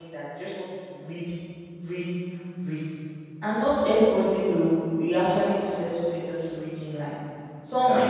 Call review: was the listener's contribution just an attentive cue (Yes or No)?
Yes